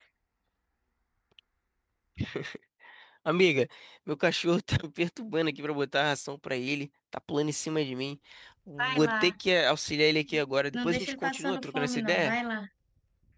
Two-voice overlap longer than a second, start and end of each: 10.7-12.4

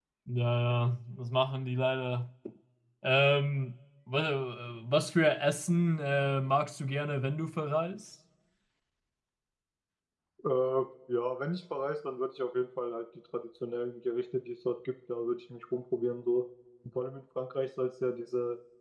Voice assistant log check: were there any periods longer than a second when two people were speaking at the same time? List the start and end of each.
none

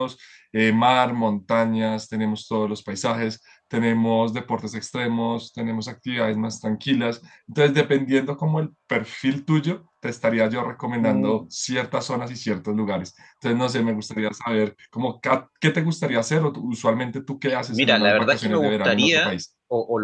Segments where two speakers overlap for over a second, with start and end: 17.7-19.3

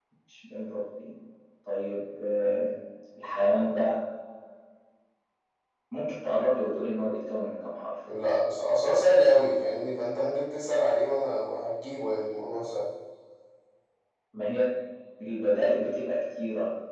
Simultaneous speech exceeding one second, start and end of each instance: none

